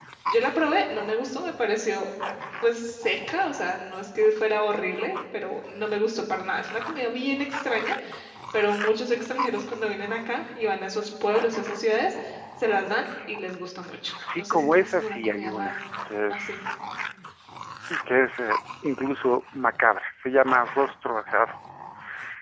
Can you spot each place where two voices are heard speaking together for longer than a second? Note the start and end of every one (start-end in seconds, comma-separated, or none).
14.3-15.8